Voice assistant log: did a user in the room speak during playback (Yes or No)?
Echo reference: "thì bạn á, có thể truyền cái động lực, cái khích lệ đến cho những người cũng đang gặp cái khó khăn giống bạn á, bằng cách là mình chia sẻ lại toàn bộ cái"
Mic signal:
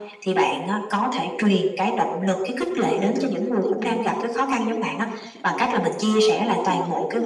Yes